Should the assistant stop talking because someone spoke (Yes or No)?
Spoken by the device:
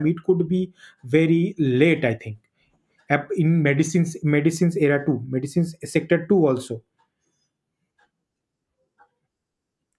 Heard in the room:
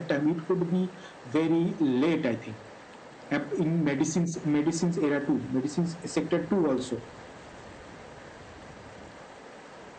No